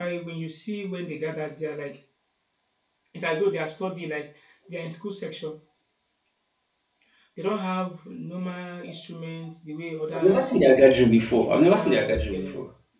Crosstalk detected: Yes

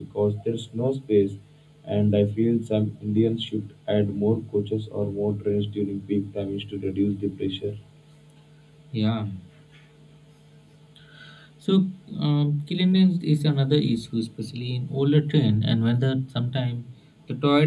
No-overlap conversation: Yes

